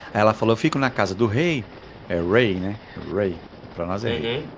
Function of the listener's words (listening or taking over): listening